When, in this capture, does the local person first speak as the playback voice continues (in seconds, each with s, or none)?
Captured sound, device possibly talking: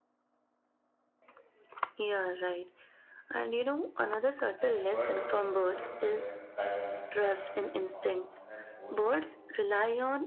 4.6 s